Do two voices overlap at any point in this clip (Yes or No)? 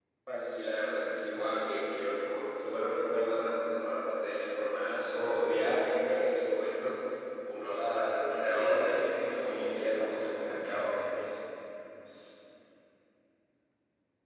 Yes